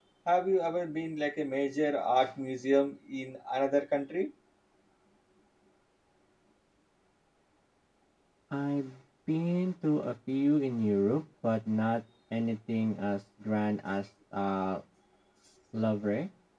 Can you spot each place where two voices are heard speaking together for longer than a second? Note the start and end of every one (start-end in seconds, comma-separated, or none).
none